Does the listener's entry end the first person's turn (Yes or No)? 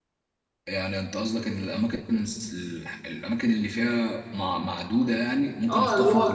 Yes